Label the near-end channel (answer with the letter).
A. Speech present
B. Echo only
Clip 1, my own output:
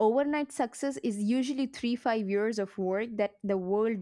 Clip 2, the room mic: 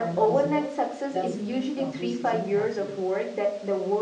A